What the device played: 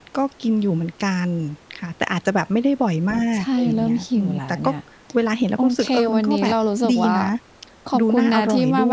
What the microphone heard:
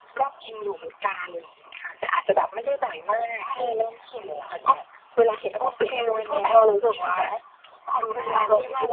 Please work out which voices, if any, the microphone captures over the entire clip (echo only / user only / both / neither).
echo only